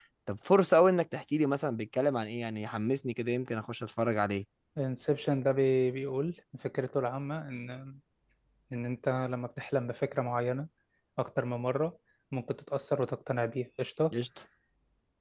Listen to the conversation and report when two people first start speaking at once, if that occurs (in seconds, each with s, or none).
none